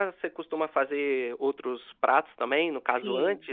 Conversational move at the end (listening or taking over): taking over